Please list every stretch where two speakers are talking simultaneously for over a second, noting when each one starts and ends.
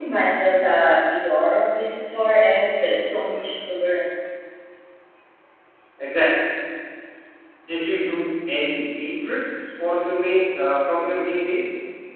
none

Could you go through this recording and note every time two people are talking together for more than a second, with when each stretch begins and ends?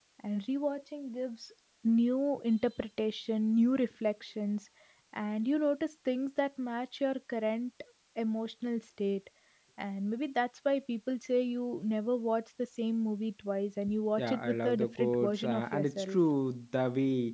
14.2-16.2

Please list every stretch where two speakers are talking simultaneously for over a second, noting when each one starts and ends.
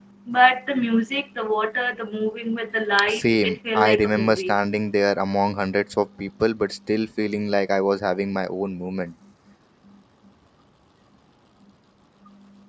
3.1-4.5

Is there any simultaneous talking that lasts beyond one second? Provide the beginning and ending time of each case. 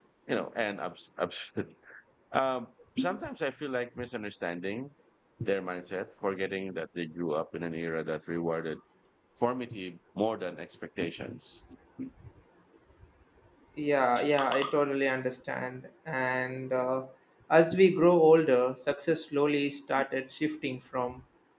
none

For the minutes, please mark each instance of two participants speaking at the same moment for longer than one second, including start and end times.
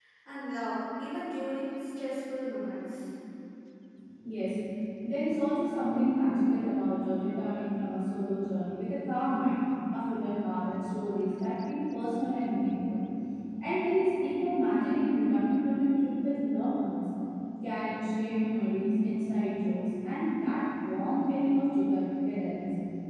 none

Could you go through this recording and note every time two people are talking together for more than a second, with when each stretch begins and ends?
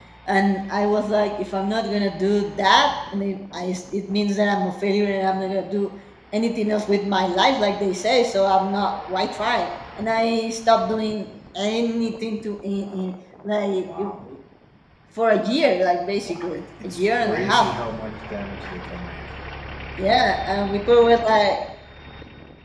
16.1-17.7

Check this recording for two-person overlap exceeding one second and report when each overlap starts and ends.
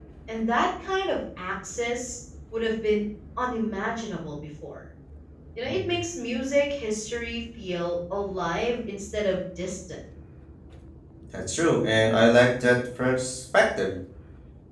none

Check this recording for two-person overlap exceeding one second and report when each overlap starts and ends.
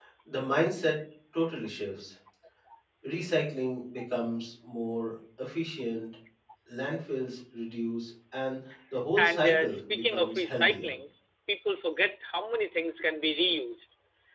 9.2-10.9

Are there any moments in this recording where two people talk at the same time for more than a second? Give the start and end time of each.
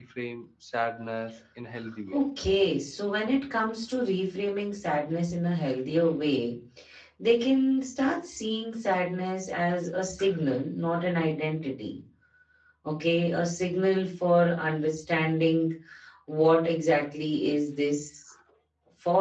none

